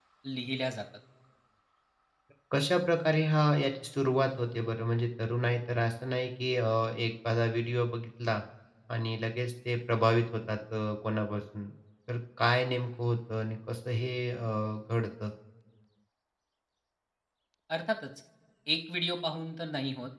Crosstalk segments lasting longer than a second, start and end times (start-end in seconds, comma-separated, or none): none